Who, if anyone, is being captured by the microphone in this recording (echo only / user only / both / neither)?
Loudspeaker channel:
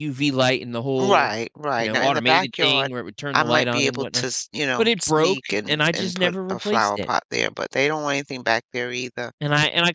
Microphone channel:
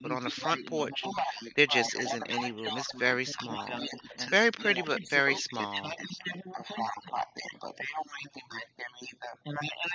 both